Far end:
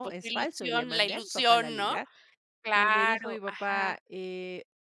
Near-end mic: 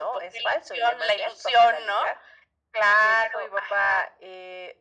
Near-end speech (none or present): none